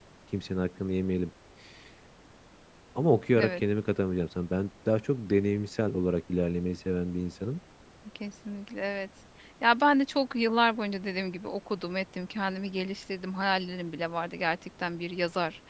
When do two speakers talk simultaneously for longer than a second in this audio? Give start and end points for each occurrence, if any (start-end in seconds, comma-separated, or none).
none